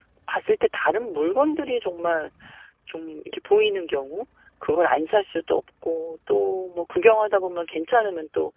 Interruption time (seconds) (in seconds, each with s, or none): none